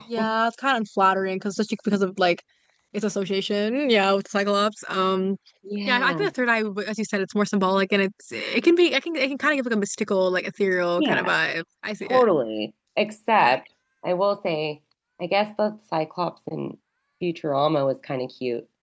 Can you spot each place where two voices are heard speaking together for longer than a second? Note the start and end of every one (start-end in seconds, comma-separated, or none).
none